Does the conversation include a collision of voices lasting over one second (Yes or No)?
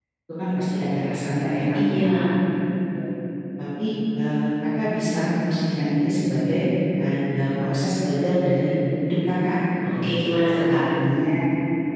No